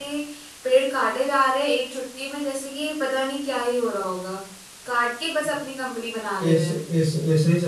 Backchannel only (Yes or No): No